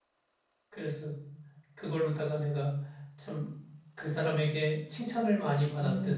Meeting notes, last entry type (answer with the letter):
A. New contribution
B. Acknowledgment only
A